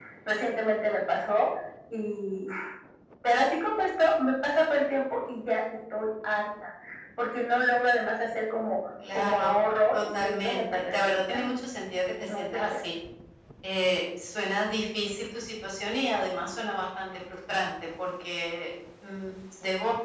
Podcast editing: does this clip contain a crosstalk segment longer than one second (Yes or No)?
Yes